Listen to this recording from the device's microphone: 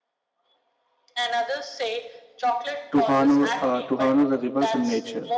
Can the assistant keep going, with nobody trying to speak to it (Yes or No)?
No